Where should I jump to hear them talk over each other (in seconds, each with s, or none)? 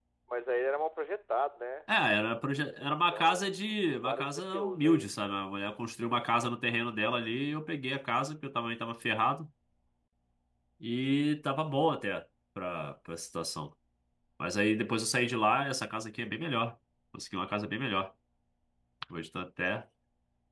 2.8 s